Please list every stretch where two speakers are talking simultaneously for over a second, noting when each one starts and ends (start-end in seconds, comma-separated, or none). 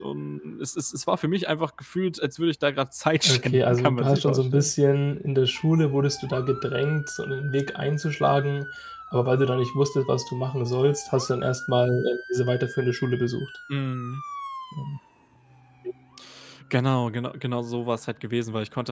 3.2-4.7